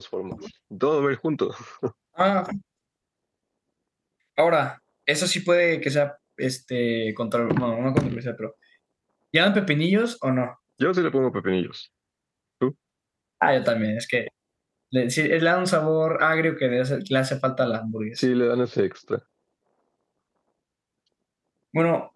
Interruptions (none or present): none